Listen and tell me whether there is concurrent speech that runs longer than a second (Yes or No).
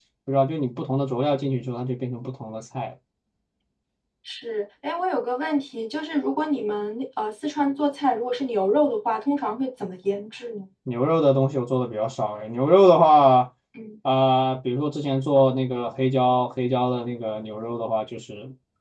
No